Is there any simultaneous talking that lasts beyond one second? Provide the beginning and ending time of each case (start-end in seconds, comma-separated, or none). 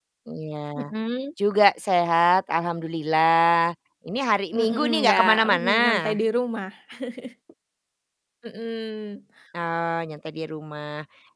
4.5-6.1